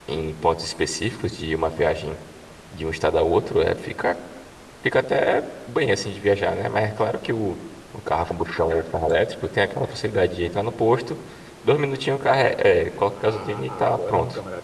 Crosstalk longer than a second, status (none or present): present